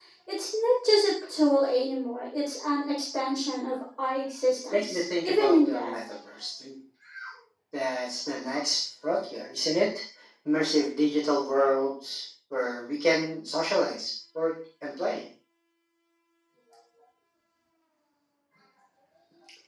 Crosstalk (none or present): present